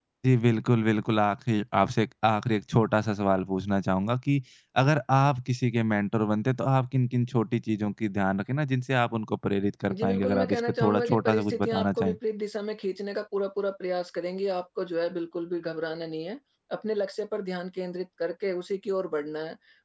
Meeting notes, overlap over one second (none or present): present